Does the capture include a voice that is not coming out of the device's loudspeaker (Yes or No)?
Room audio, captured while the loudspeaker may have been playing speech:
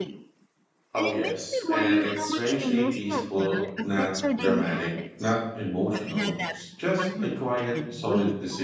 Yes